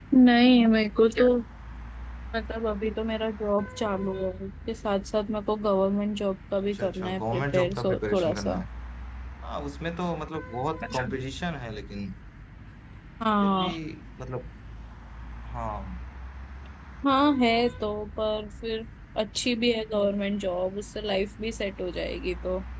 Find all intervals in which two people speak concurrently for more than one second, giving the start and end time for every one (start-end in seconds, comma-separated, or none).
6.7-8.6